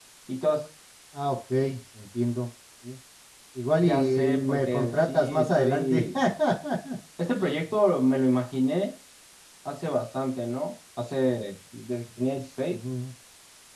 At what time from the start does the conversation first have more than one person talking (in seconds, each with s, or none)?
3.8 s